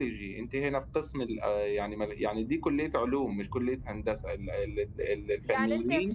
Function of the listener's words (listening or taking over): taking over